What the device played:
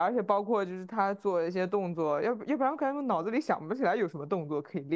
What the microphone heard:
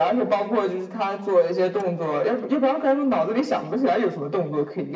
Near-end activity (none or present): none